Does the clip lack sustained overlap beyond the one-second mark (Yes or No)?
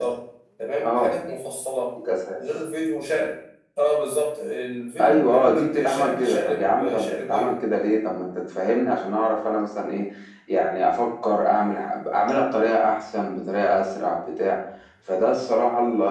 No